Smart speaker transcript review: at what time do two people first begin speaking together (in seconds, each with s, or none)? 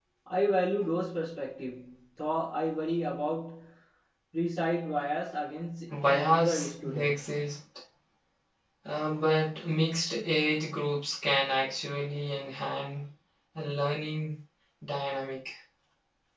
5.9 s